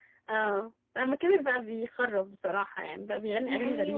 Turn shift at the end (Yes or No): Yes